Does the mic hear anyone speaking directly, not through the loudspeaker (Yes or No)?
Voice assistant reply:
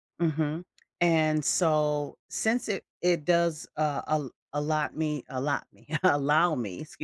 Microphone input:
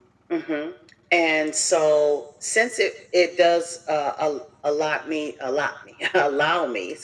No